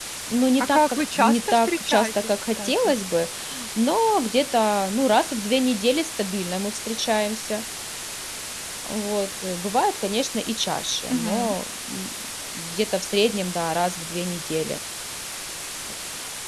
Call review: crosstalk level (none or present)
present